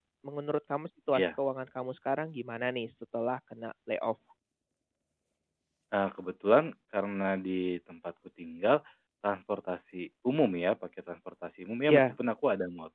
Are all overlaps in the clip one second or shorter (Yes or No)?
Yes